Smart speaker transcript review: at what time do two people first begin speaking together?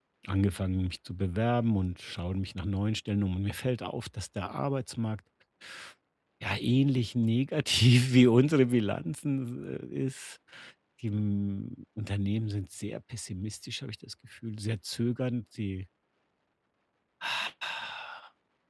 none

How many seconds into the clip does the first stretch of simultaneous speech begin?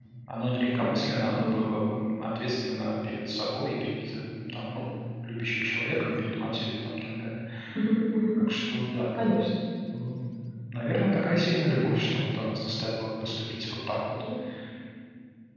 none

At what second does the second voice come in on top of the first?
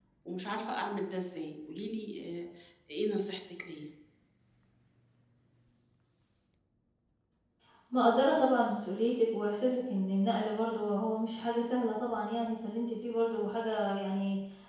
none

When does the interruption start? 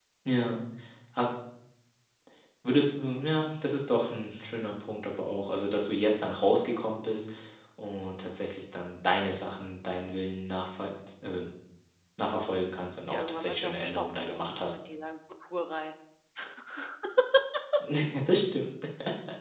13.1 s

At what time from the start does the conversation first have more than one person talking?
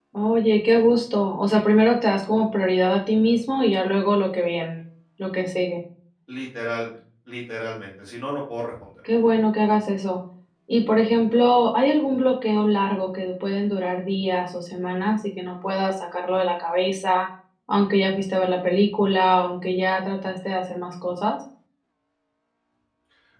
none

